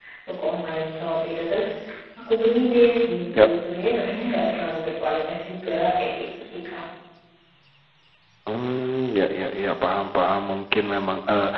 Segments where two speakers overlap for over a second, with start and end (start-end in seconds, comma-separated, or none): none